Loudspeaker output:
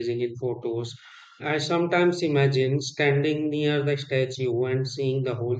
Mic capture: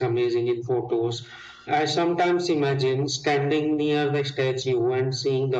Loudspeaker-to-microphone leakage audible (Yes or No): Yes